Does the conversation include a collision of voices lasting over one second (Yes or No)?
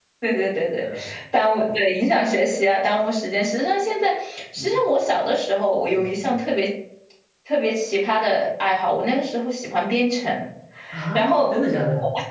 No